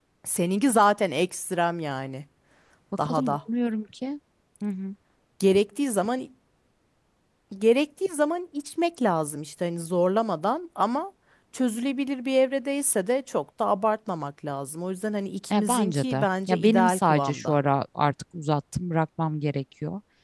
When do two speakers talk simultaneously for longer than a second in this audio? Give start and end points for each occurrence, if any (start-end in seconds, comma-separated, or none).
15.5-17.6